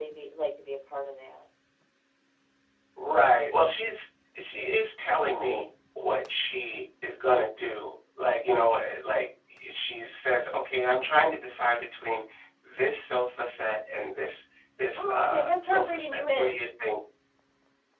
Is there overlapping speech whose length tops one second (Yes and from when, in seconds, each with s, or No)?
Yes, from 15.0 s